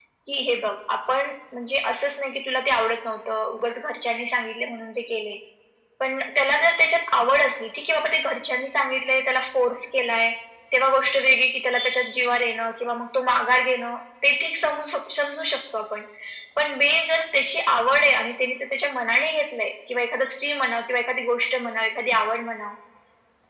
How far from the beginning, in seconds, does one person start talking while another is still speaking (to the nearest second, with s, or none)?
none